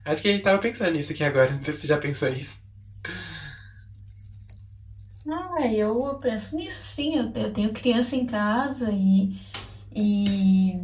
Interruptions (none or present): none